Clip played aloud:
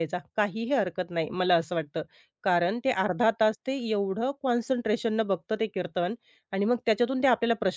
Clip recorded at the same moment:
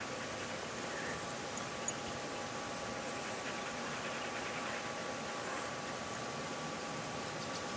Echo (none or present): none